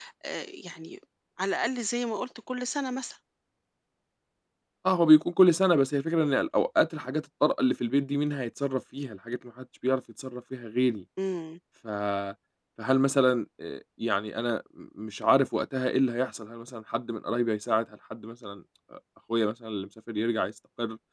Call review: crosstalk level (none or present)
none